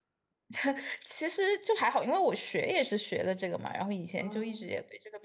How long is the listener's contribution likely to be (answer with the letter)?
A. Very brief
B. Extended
A